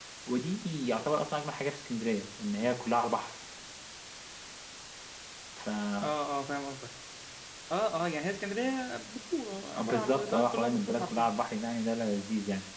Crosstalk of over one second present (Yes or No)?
Yes